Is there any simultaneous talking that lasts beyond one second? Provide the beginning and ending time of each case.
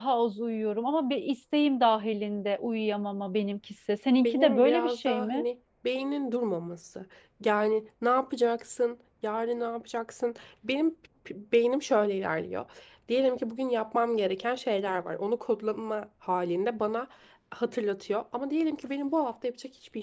4.2-5.4

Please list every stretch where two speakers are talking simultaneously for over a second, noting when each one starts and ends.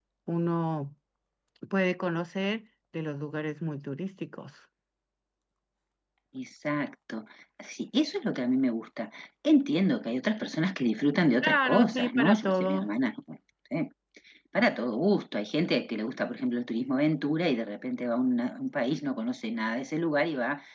11.4-12.9

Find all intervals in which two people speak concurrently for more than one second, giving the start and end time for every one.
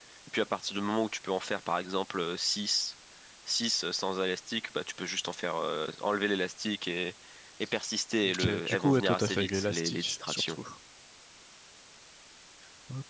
8.2-10.6

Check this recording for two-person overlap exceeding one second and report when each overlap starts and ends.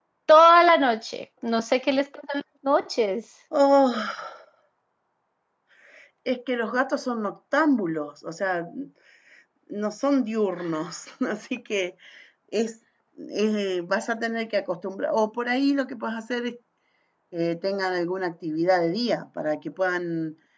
none

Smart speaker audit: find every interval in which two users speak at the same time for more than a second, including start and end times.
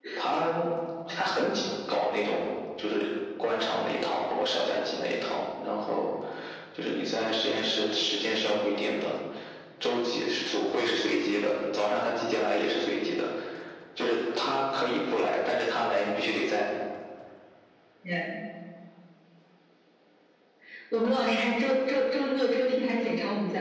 none

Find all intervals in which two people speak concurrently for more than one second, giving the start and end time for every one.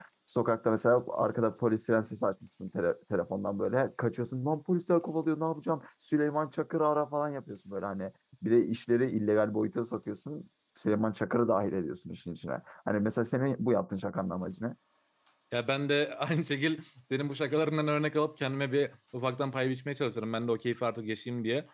none

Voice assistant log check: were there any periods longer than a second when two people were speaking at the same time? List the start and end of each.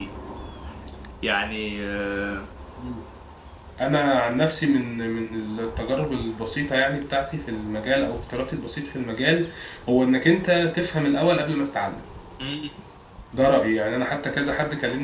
none

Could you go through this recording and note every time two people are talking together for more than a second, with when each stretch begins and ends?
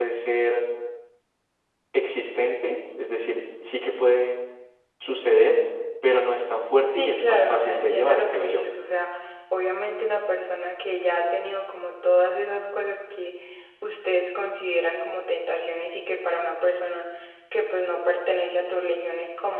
6.9-8.7

